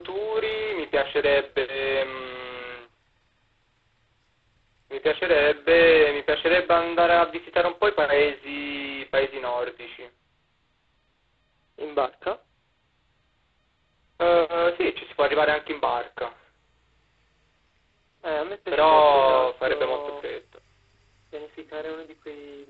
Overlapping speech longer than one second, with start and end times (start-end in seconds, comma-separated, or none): 18.7-20.3